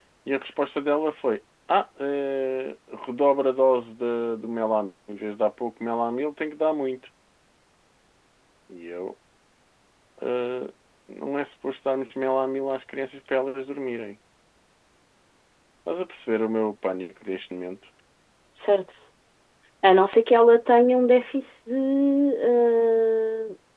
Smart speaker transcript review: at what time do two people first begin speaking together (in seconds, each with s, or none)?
none